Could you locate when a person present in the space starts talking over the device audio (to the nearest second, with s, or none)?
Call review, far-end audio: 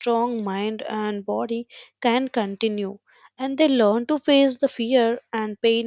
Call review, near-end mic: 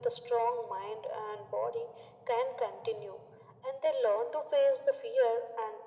none